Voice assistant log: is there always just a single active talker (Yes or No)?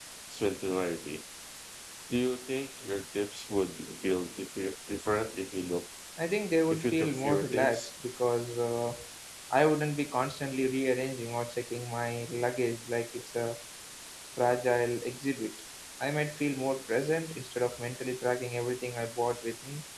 No